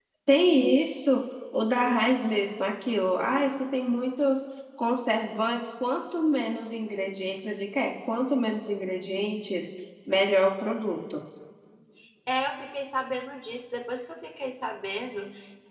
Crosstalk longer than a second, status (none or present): none